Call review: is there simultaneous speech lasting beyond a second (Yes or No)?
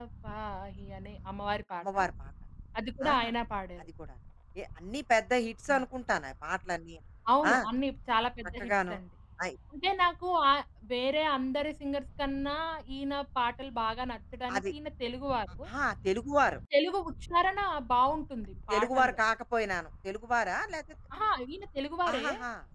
No